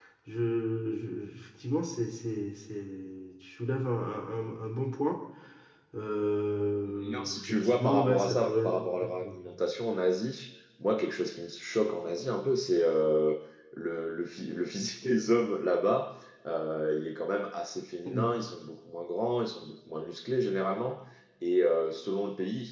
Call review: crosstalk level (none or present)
present